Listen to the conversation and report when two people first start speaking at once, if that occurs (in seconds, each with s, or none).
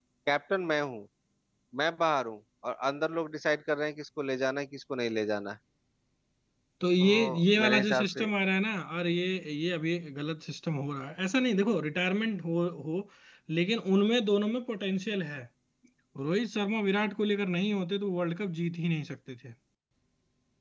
7.0 s